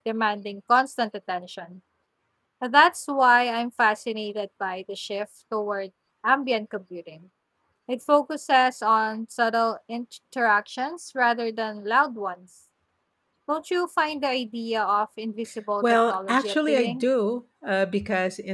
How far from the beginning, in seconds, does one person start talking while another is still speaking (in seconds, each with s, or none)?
15.8 s